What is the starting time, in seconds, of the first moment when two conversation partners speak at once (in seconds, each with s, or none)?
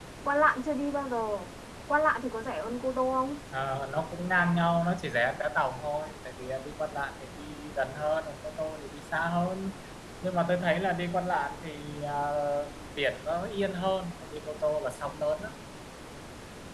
none